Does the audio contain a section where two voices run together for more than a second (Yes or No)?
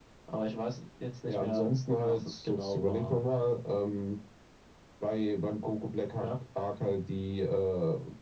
Yes